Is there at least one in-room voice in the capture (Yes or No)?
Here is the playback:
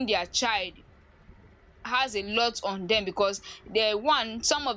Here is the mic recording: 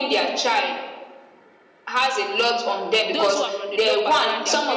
Yes